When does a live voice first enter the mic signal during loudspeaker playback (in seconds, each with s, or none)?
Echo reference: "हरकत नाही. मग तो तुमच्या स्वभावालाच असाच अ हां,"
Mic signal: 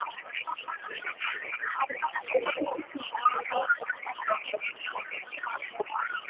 none